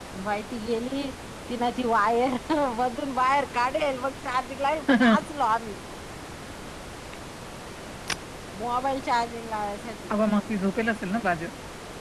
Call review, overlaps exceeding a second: none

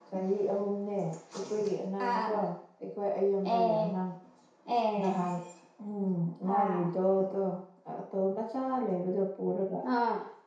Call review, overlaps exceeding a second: none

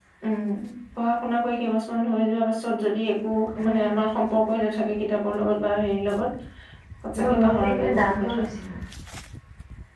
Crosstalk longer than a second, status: present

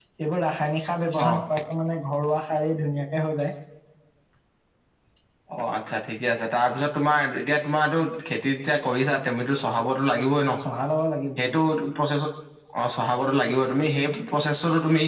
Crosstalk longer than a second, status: none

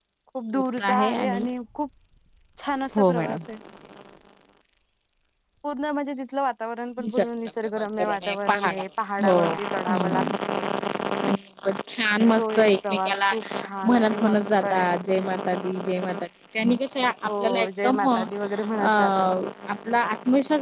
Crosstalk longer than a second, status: present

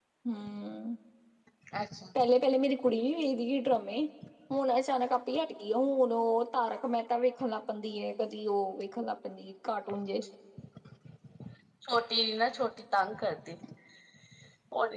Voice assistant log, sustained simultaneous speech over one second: none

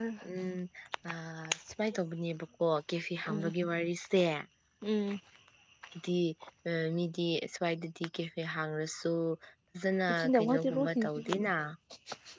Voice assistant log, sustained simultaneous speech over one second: present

